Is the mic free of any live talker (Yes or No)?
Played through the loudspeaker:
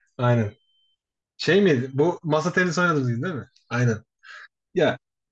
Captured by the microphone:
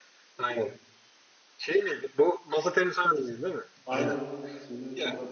No